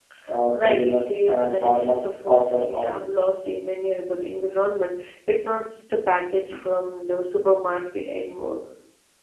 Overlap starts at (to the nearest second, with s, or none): 1 s